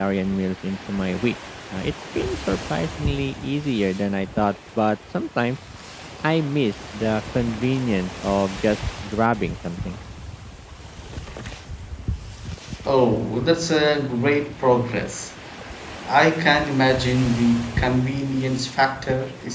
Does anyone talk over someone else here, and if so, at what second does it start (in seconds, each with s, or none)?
none